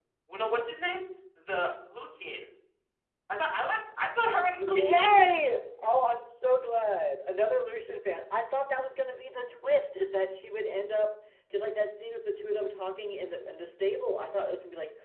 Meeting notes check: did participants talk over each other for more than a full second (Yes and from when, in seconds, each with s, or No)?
No